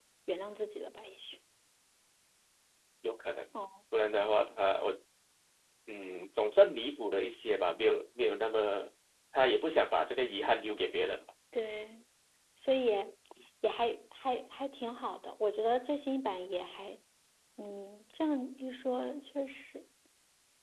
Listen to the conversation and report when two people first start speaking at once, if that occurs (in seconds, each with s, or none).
none